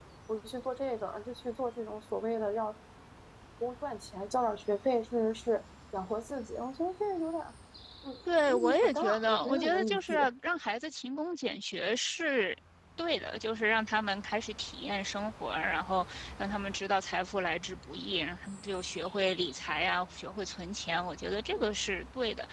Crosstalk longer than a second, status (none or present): present